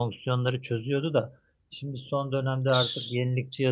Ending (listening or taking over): listening